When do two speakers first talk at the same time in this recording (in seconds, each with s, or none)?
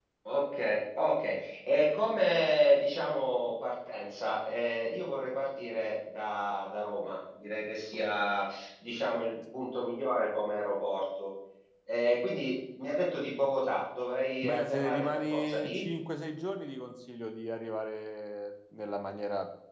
14.4 s